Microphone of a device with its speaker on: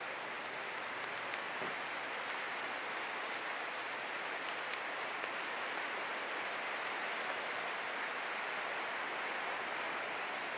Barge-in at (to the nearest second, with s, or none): none